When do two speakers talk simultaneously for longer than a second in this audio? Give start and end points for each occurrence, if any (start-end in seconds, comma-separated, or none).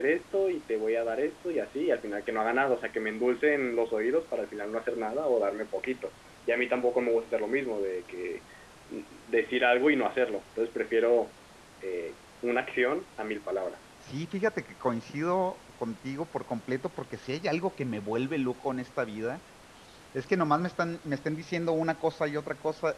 none